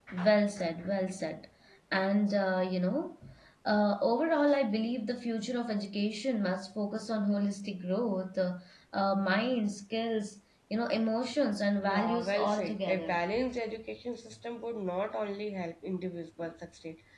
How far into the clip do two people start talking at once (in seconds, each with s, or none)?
11.8 s